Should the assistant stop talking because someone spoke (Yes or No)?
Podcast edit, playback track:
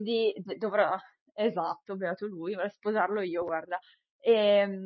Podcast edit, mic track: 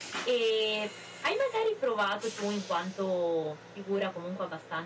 Yes